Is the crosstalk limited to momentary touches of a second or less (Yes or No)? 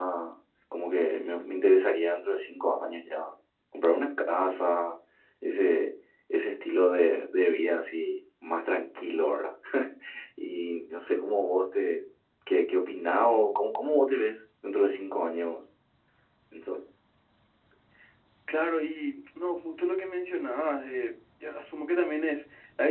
Yes